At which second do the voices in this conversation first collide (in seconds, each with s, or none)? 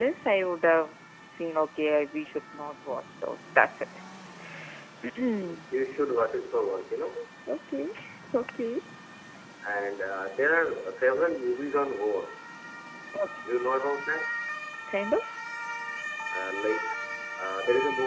none